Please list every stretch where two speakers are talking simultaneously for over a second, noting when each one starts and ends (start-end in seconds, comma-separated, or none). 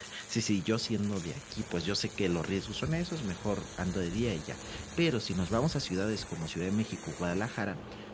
none